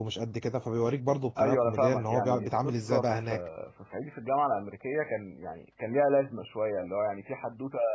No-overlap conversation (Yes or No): No